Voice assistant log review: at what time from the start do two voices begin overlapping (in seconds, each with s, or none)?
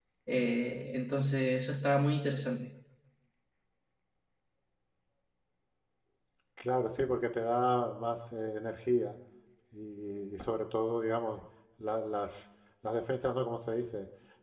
none